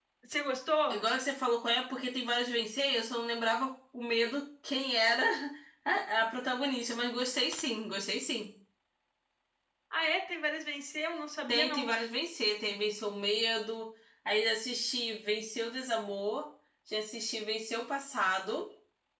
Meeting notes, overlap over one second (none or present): none